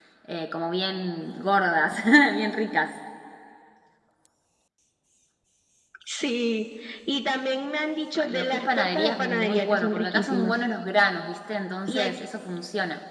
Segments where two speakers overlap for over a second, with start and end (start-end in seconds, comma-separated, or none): 8.1-10.5